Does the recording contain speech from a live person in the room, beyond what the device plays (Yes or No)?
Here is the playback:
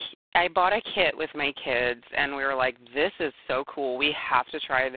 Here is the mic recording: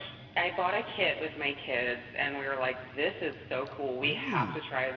Yes